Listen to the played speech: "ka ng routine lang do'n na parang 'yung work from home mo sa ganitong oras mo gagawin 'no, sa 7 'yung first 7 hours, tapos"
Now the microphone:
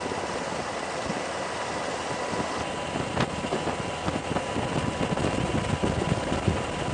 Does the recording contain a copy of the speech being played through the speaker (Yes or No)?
No